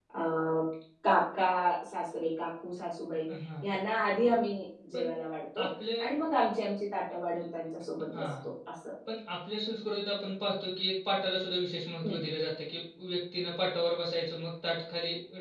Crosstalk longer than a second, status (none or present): none